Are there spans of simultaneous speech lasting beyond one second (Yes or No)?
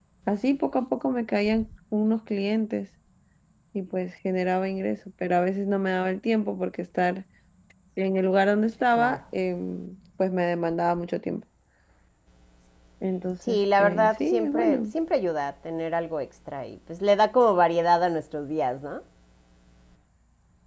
Yes